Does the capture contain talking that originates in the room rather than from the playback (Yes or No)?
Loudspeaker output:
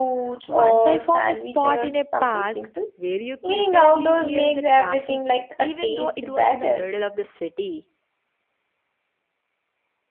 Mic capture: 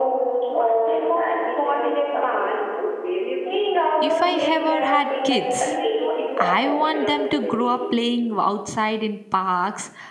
Yes